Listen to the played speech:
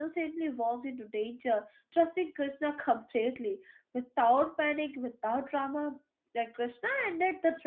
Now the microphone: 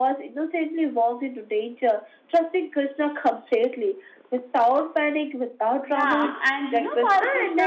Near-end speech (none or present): present